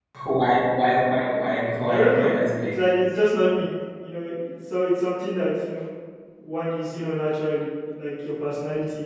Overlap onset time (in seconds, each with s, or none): 1.9 s